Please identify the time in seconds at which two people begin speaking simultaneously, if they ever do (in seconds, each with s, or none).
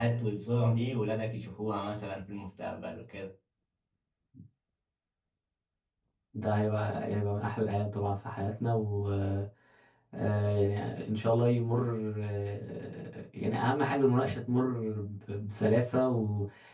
none